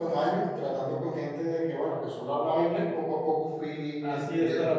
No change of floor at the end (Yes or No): No